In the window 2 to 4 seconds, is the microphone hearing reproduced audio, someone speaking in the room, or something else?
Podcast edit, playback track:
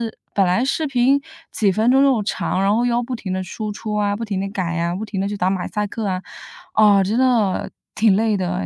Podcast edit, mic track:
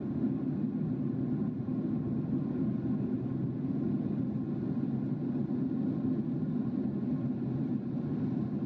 neither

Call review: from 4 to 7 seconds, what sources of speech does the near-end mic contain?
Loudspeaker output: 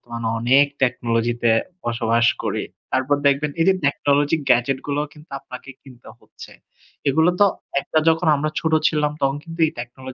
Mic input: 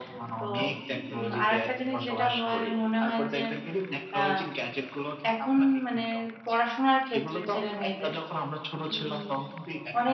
both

